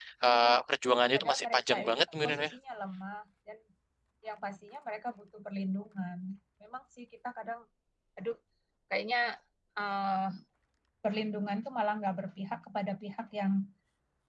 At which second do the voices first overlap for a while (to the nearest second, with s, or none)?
1 s